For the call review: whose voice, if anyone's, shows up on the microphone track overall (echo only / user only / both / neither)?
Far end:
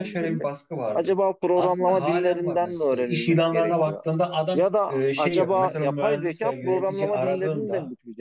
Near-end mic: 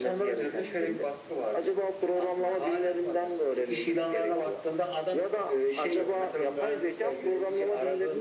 echo only